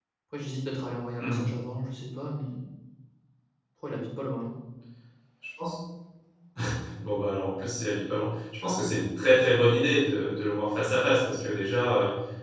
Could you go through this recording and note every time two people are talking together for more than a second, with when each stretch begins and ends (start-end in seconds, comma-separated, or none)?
none